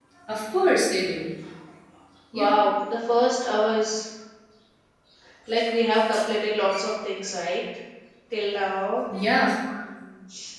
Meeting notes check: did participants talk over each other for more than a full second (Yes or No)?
No